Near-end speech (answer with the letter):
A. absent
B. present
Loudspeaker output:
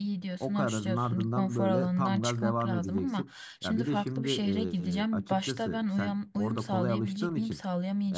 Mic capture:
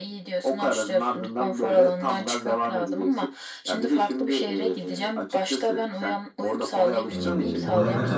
B